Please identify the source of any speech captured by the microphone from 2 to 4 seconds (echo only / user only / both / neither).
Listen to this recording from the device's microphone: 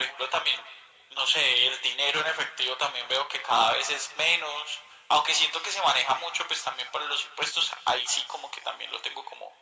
echo only